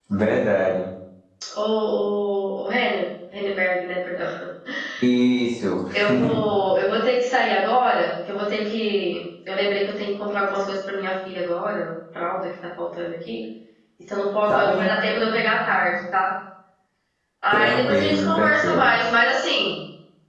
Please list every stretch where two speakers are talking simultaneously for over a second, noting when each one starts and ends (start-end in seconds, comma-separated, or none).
17.5-18.8